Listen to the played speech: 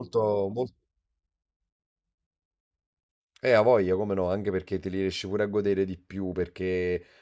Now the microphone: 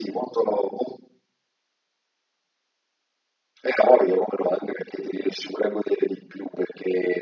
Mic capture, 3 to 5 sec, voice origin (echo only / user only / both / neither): echo only